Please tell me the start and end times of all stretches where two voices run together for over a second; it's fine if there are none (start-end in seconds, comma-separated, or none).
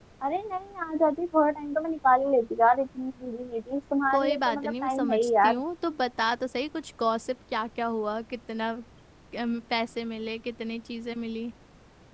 4.1-5.6